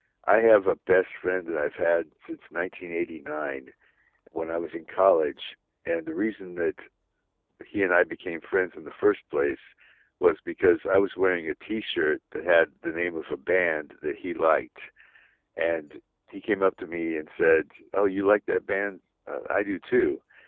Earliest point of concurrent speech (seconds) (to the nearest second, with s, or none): none